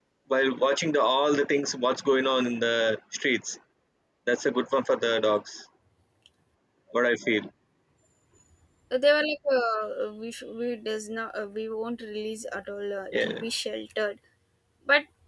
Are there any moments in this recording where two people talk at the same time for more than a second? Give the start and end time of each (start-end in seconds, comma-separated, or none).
none